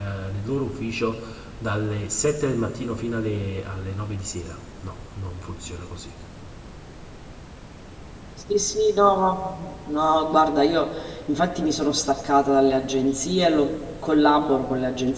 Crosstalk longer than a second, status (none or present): none